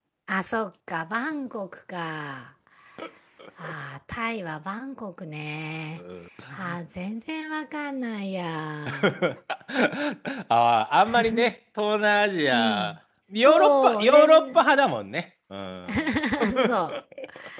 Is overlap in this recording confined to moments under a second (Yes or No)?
No